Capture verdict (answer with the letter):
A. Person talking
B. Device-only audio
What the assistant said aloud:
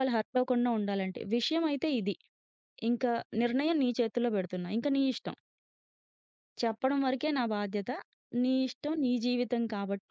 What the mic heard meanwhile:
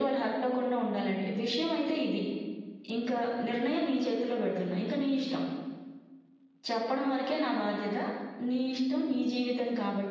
B